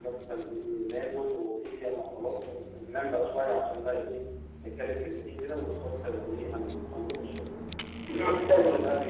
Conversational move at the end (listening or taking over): listening